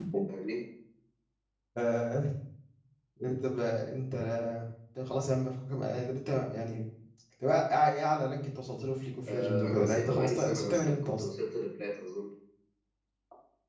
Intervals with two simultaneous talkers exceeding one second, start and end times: 9.3-11.2

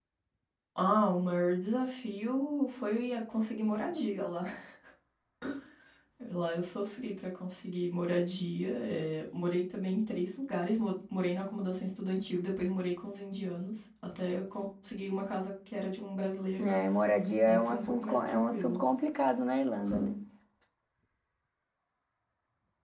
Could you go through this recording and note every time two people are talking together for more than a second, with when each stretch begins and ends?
17.5-18.8

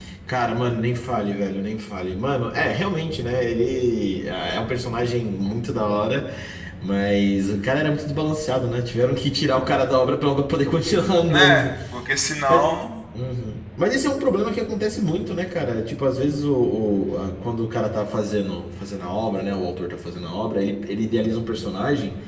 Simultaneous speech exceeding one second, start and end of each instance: none

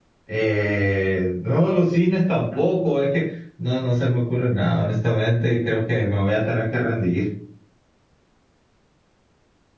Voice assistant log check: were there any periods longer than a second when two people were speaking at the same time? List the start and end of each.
none

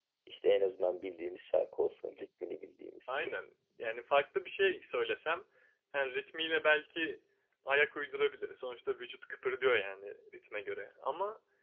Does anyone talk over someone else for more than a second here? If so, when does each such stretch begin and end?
none

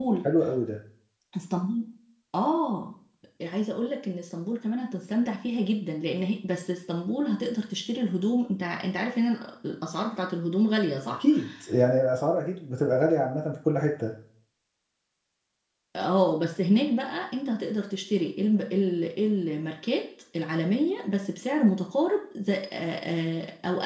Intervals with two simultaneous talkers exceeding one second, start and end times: none

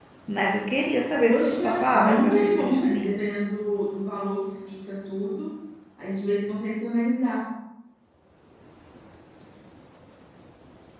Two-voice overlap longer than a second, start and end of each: 1.2-3.2

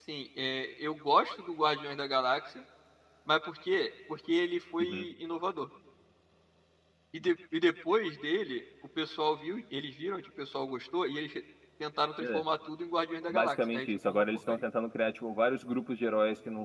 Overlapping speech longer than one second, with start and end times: 13.3-14.6

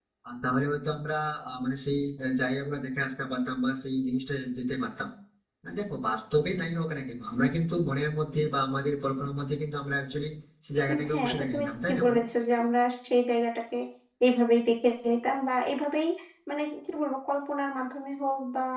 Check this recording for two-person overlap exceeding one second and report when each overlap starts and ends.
10.9-12.2

